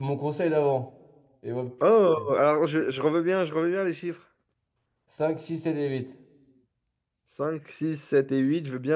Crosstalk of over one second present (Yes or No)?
No